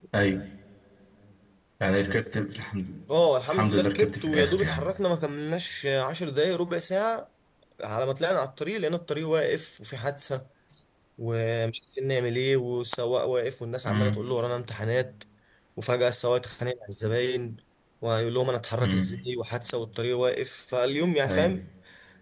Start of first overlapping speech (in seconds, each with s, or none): 3.5 s